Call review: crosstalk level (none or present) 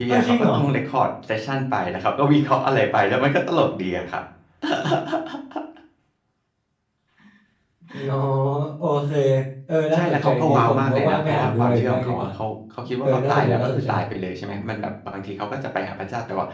present